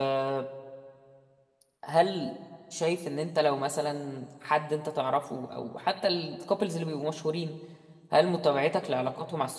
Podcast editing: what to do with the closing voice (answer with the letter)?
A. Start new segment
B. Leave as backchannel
B